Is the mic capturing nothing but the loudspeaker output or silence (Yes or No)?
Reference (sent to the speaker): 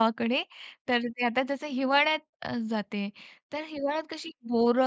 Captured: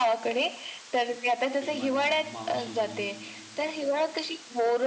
No